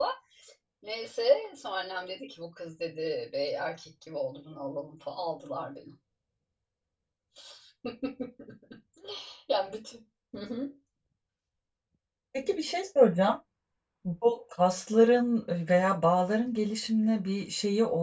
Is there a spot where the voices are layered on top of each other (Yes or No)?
No